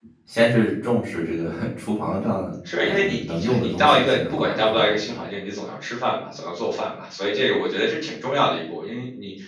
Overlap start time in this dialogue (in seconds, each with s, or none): 2.7 s